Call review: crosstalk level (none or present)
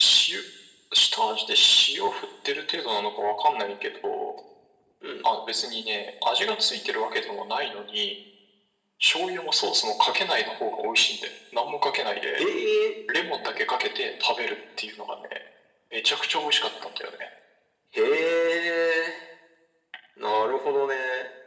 none